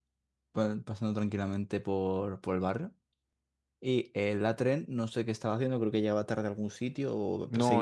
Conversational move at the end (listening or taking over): taking over